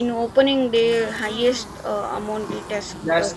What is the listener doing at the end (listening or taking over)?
taking over